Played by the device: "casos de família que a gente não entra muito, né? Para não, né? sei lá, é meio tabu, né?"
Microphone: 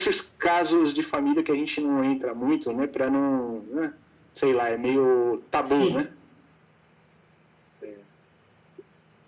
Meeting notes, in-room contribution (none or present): present